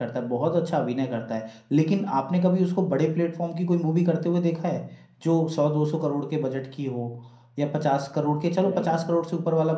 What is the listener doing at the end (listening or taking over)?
listening